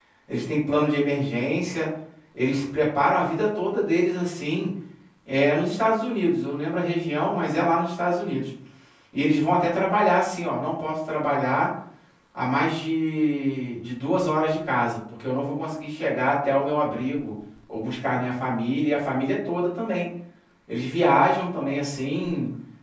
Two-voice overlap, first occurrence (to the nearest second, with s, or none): none